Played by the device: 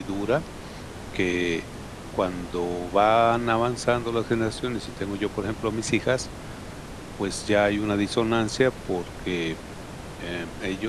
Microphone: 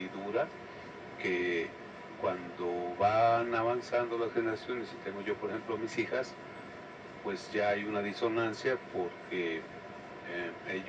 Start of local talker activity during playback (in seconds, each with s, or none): none